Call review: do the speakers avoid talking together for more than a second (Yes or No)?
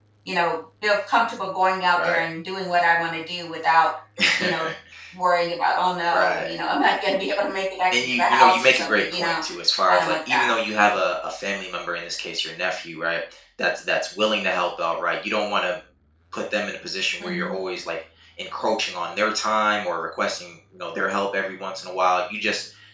No